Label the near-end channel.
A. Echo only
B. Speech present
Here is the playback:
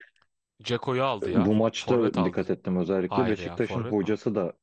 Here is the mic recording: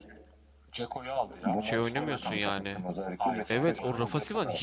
B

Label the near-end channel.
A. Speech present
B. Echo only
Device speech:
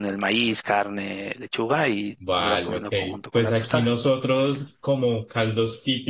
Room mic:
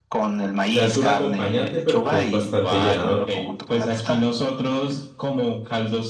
A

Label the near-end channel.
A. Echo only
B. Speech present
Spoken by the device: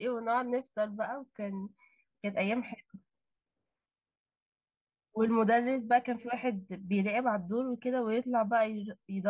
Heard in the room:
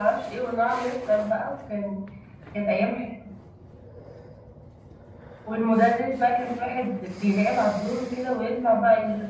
A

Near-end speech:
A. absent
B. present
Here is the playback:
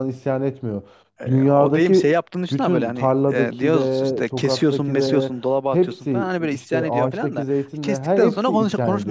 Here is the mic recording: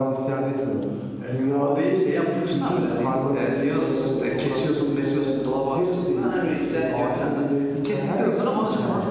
A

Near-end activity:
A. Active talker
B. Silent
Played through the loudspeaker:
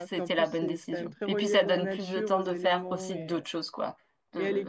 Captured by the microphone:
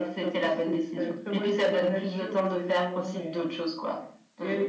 B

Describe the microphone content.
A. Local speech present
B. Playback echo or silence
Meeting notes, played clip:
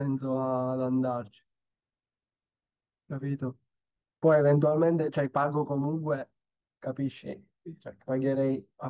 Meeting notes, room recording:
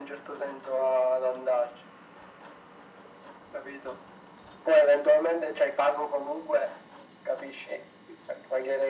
B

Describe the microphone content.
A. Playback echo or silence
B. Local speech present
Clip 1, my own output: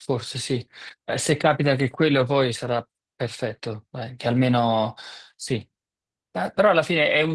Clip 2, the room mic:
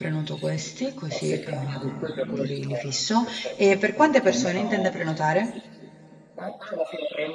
B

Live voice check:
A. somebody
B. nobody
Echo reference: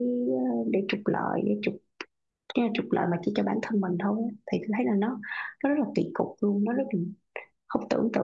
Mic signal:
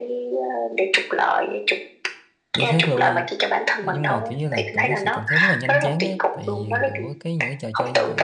A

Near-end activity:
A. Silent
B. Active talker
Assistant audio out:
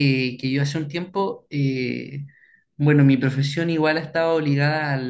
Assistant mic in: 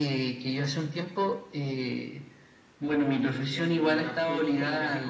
B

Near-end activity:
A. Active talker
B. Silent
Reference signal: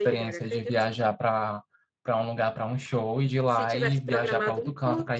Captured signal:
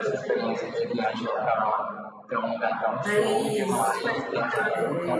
A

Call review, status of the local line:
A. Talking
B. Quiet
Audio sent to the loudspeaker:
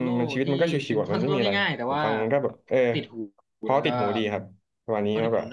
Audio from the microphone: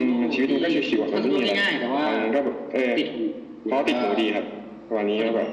B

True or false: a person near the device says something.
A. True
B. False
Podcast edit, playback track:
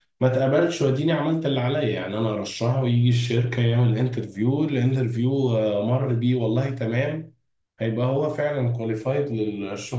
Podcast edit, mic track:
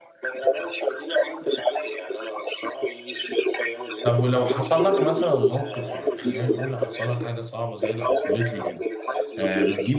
A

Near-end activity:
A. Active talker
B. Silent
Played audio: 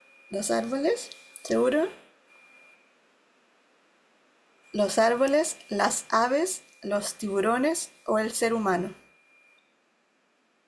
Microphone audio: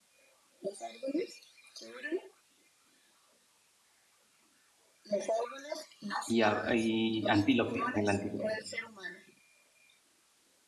A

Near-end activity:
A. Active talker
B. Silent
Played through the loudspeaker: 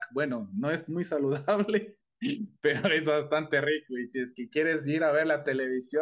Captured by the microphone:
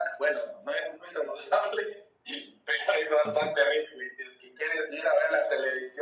A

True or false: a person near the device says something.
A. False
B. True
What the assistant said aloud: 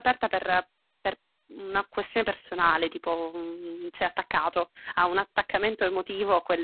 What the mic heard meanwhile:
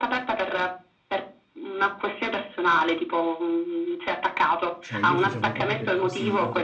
B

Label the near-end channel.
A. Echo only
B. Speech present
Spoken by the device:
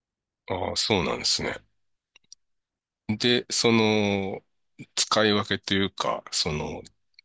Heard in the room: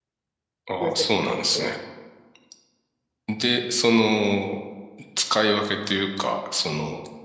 B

